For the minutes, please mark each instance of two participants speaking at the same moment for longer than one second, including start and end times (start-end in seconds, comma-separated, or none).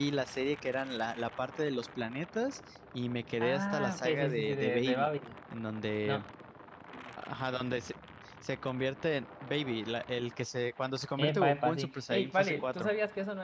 3.4-5.1, 11.2-12.9